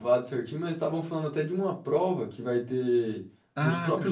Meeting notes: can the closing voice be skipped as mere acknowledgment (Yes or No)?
No